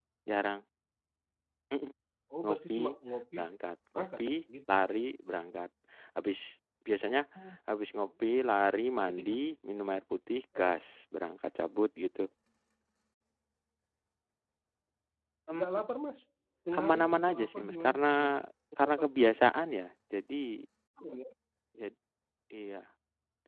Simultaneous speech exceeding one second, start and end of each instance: 16.8-18.4

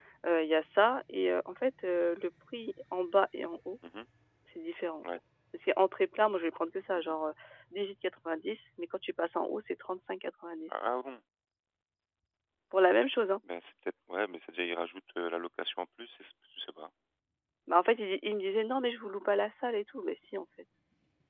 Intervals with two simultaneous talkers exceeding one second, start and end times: none

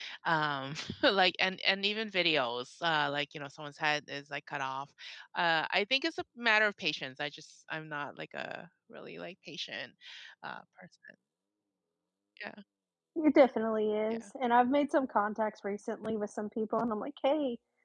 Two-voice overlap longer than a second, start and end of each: none

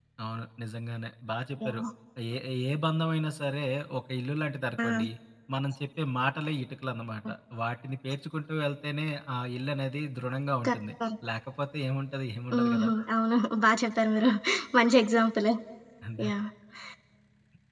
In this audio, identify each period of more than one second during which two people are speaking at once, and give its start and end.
none

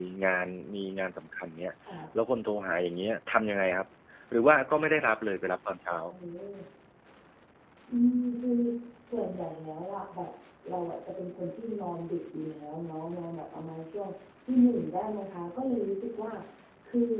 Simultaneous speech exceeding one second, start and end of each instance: none

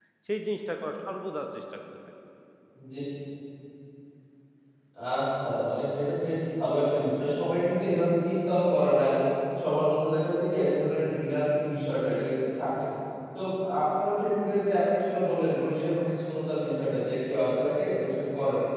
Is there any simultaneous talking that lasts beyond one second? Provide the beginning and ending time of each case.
none

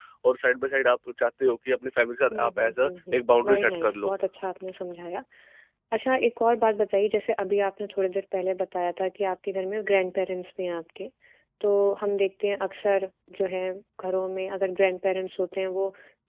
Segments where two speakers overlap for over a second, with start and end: 2.3-4.1

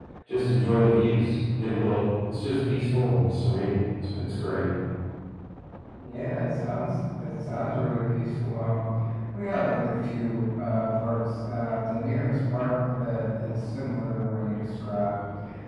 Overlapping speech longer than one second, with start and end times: none

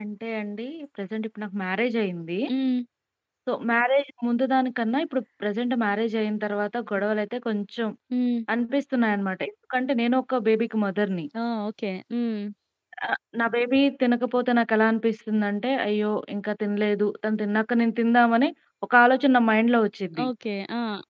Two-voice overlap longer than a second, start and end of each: none

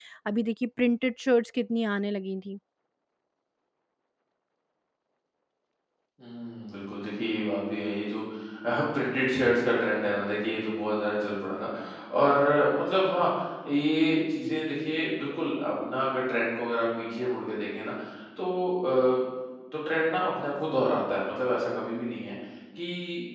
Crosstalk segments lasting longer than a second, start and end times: none

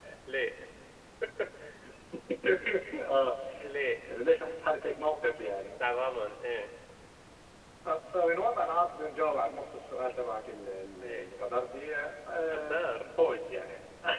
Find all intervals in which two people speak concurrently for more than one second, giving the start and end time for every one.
none

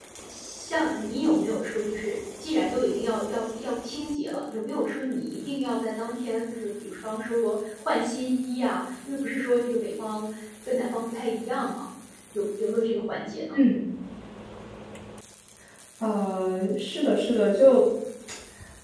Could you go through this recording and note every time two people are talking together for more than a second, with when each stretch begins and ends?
none

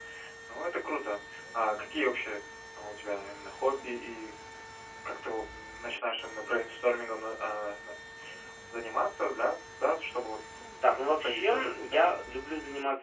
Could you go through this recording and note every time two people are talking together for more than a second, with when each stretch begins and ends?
10.9-12.2

